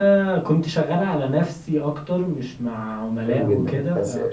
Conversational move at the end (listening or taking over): taking over